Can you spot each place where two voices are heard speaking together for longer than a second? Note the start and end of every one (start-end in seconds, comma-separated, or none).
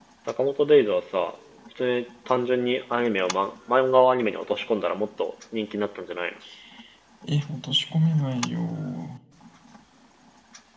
none